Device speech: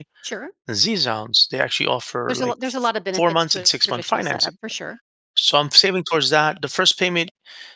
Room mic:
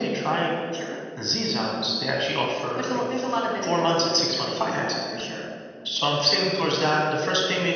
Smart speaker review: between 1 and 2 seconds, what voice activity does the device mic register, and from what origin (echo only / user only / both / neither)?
echo only